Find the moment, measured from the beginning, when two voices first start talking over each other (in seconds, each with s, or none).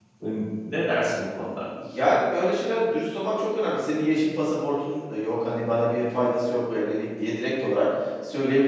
none